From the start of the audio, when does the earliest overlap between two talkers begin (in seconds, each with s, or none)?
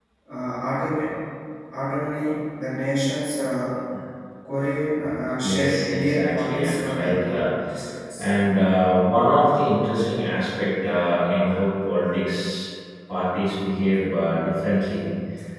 5.4 s